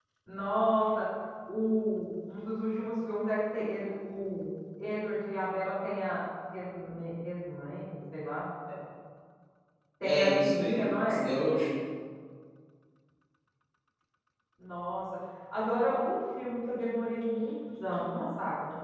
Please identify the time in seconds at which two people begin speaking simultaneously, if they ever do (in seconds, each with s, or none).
10.0 s